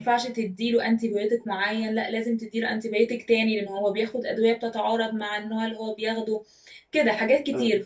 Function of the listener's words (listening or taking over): listening